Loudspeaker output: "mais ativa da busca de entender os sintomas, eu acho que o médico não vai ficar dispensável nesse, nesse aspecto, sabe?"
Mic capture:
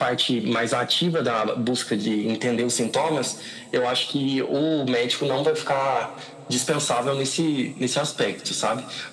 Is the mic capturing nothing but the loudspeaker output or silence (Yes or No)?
Yes